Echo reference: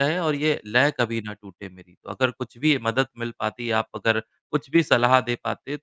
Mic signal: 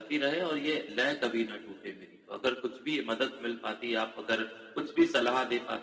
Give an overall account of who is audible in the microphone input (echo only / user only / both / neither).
echo only